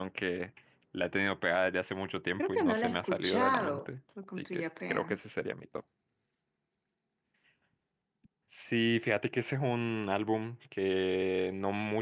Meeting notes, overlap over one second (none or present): present